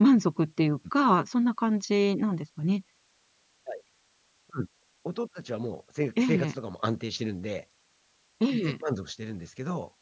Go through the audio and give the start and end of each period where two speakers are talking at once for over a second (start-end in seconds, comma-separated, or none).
none